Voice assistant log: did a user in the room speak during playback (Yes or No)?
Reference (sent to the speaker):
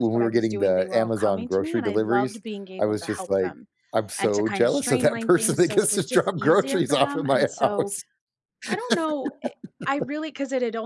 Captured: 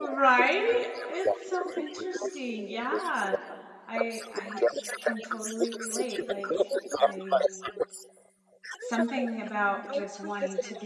Yes